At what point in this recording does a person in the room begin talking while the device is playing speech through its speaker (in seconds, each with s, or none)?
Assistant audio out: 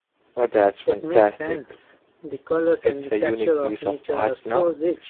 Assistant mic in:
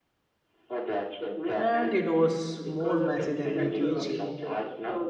1.6 s